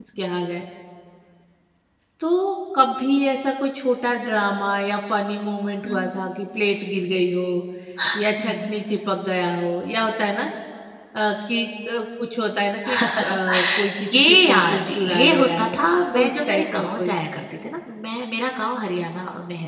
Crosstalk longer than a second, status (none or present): present